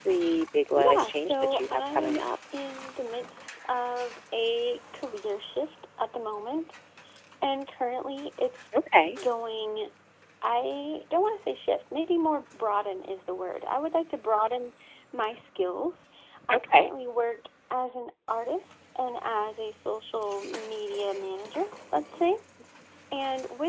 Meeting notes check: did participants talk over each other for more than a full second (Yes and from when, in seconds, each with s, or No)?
Yes, from 0.8 s